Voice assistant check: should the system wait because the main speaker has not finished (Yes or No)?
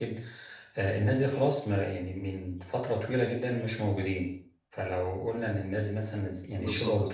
Yes